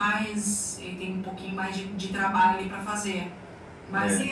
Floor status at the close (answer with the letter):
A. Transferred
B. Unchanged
B